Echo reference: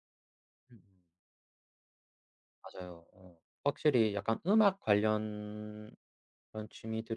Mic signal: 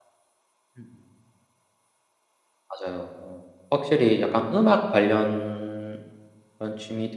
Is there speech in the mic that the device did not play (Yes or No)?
No